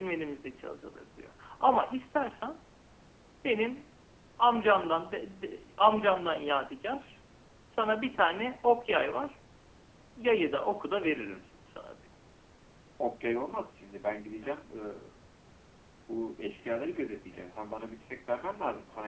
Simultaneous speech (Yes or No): No